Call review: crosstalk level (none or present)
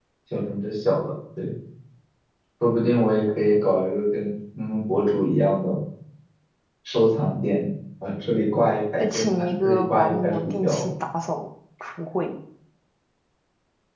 present